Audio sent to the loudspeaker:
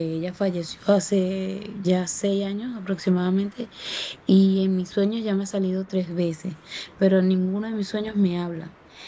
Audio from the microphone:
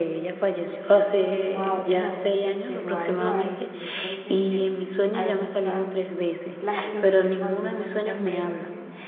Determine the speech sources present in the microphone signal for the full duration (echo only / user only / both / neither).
both